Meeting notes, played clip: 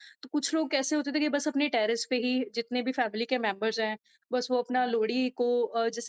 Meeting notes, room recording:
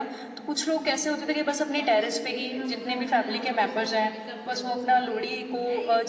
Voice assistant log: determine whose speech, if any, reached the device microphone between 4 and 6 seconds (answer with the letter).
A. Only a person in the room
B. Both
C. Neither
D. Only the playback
B